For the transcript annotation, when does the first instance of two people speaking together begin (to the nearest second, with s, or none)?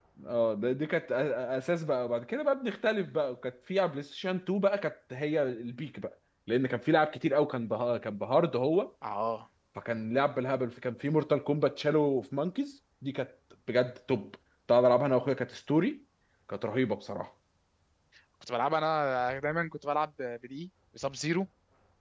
none